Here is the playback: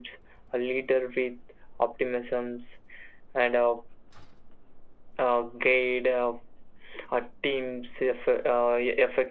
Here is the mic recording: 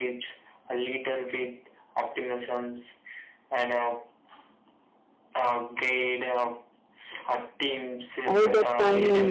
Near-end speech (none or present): present